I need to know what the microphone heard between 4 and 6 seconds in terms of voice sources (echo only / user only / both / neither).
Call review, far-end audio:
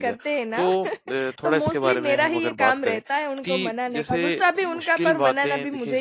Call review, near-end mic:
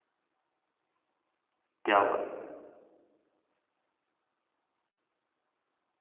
neither